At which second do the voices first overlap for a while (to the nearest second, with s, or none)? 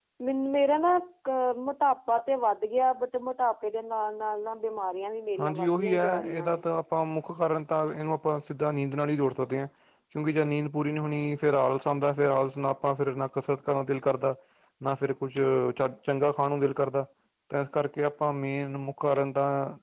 5 s